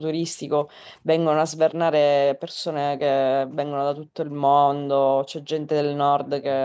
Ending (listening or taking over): listening